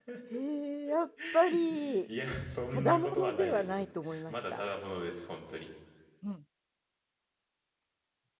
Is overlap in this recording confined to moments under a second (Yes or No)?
No